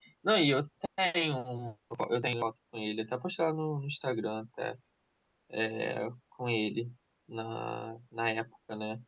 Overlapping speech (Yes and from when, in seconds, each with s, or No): No